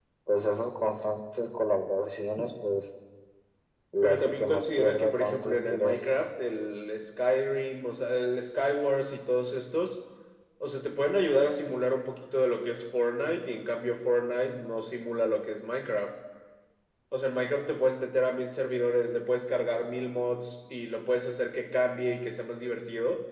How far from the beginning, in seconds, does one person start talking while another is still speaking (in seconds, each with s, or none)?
4.0 s